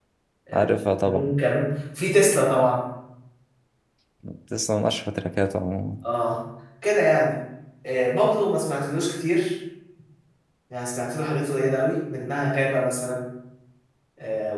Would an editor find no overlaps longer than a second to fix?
Yes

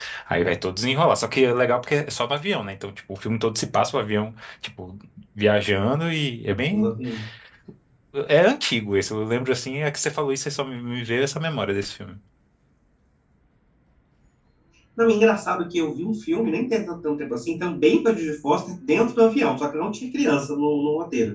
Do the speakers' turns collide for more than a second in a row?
No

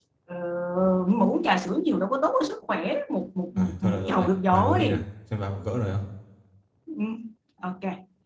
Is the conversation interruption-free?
No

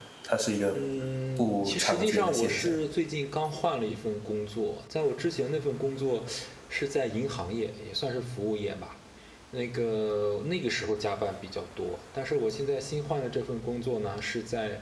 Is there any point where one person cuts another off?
Yes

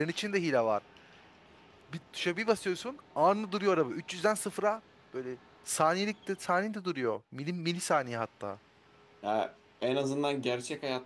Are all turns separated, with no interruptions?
Yes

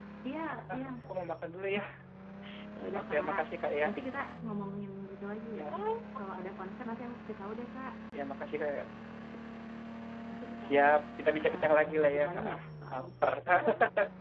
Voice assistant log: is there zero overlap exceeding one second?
No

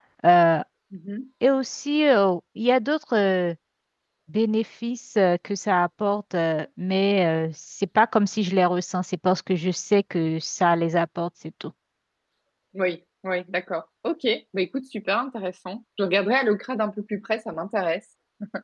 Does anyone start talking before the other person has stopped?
No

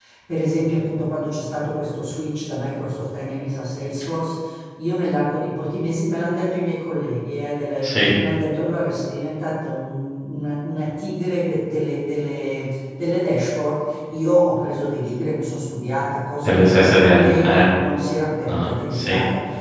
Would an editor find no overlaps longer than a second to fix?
No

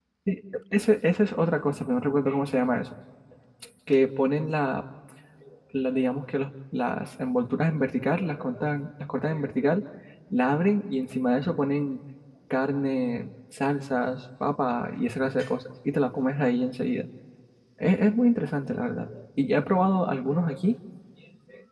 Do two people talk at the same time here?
No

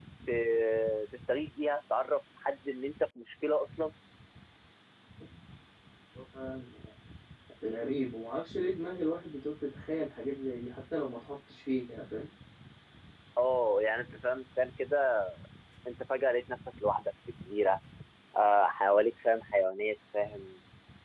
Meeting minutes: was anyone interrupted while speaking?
No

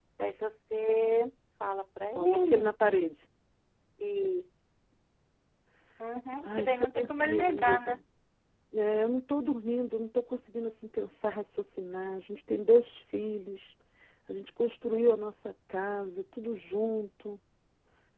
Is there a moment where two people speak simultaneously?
Yes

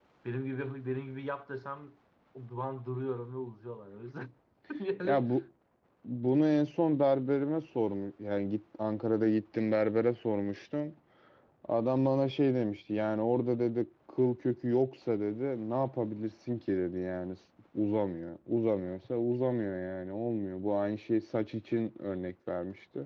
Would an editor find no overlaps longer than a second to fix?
Yes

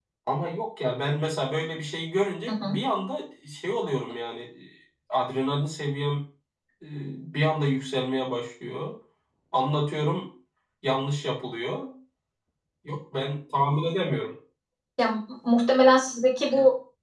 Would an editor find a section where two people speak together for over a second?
No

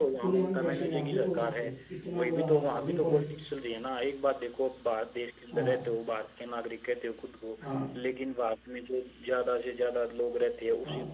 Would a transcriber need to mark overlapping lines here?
Yes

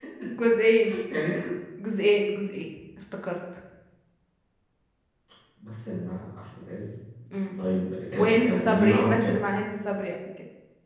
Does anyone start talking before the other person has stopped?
Yes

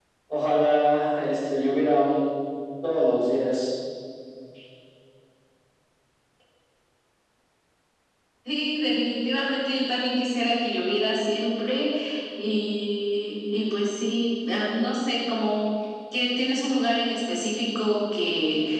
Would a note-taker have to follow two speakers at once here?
No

